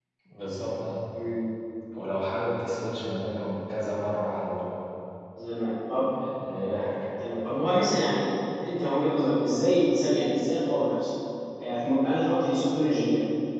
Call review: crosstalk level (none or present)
none